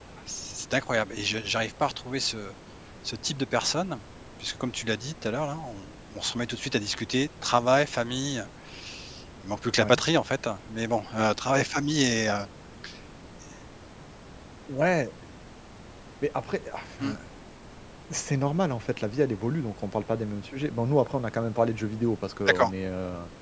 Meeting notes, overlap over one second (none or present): none